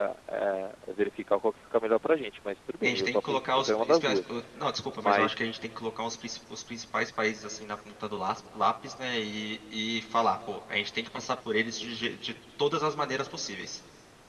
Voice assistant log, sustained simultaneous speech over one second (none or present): present